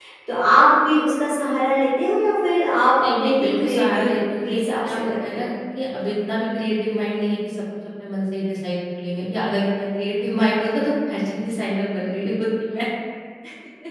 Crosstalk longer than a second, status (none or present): present